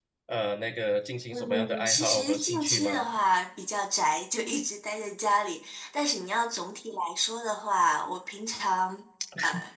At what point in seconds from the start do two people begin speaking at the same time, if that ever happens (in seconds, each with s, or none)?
1.3 s